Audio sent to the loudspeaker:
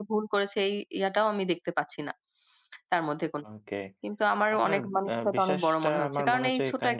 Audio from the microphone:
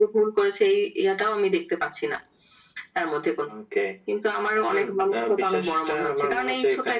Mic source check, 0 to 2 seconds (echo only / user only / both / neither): echo only